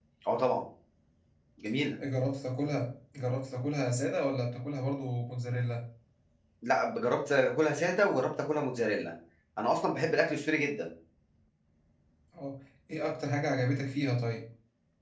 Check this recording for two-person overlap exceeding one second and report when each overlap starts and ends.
none

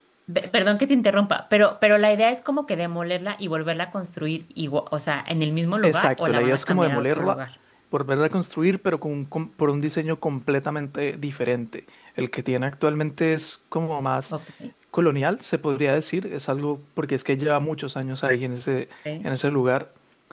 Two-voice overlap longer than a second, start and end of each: 5.8-7.4

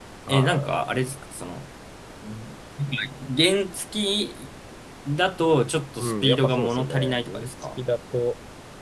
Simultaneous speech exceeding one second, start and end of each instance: 6.0-7.8

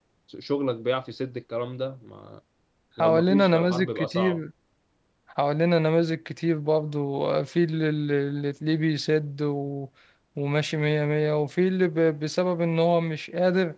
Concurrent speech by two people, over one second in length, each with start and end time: 3.0-4.4

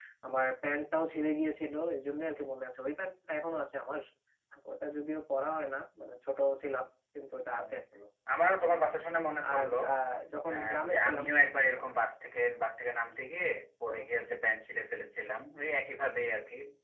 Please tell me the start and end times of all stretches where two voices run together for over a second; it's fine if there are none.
10.5-11.8

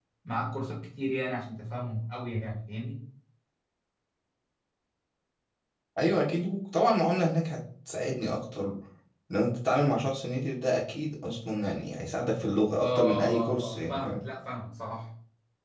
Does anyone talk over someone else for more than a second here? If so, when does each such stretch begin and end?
12.8-14.2

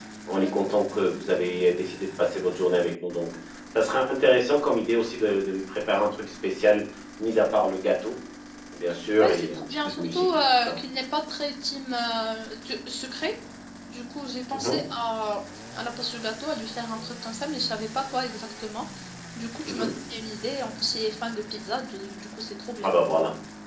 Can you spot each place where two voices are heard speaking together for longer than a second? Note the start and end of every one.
9.2-10.8

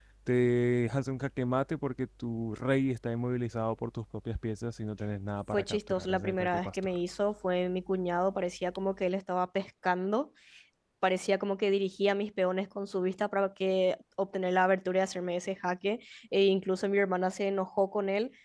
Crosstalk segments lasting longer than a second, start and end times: 5.5-6.8

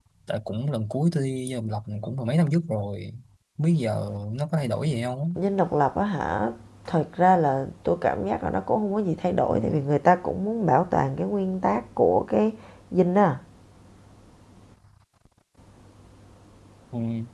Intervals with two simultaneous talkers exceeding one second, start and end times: none

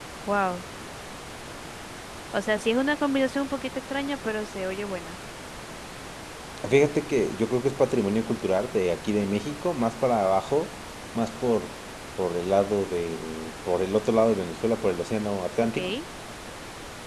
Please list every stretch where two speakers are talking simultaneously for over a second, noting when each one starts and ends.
none

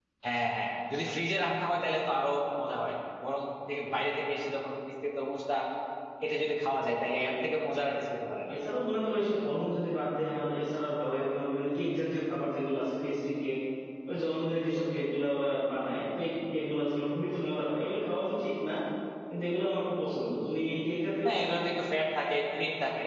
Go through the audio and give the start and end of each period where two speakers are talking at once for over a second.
none

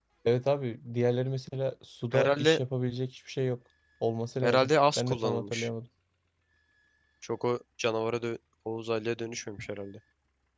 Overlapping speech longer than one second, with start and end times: 4.4-5.7

